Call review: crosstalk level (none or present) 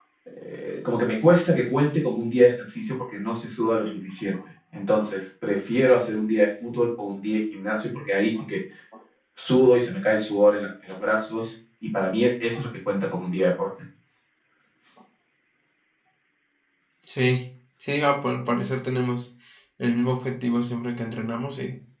none